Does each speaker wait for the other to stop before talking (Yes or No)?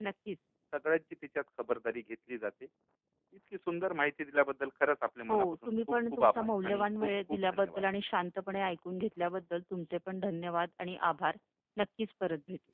No